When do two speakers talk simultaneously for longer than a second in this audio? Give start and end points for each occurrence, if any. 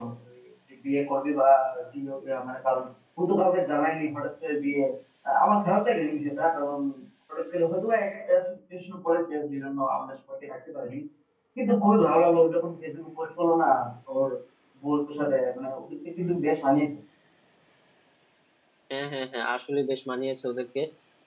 none

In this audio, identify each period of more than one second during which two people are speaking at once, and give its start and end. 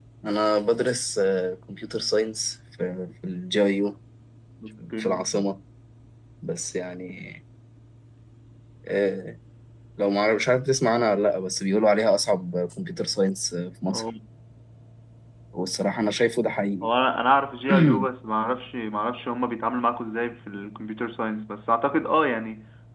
none

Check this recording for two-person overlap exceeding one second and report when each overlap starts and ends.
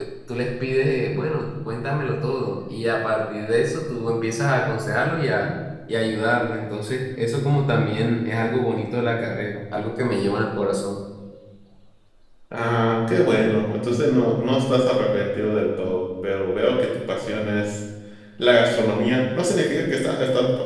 none

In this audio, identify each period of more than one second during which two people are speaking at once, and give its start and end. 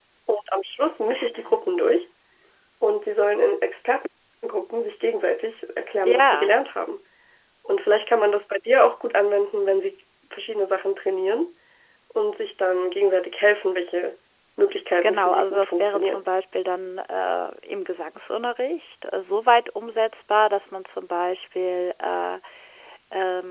15.0-16.2

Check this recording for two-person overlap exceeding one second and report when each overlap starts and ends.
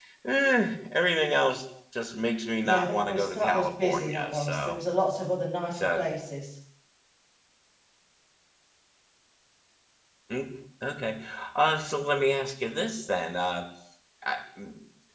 2.6-4.8

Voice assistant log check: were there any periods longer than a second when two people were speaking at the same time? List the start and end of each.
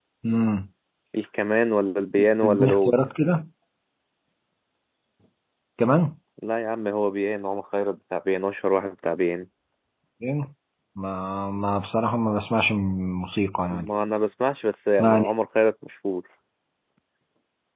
none

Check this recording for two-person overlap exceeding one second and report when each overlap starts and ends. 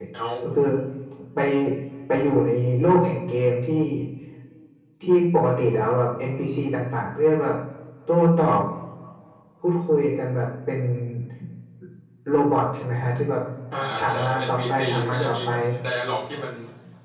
14.0-15.5

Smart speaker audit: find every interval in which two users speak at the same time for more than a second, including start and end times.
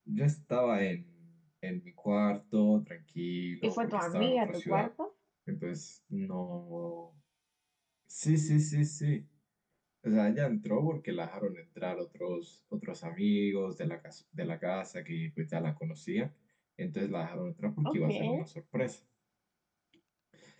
3.6-4.9

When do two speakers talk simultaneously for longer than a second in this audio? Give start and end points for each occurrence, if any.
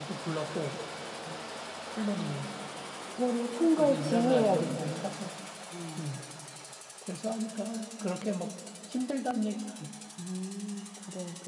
3.7-5.1

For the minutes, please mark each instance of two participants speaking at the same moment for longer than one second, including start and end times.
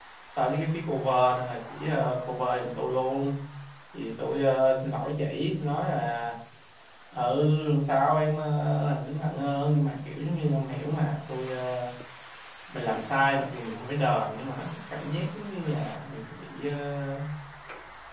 none

